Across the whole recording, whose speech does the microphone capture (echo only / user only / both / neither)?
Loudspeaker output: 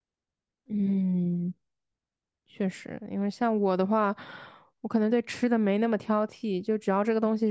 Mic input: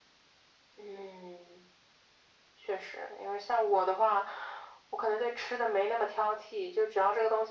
echo only